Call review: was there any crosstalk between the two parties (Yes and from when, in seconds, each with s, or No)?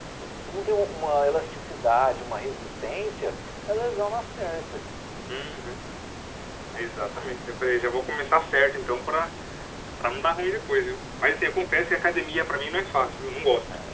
No